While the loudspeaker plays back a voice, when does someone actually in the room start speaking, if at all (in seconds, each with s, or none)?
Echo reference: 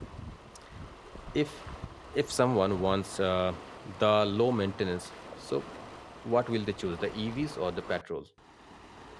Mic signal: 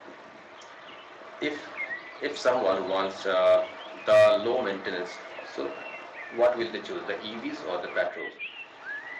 none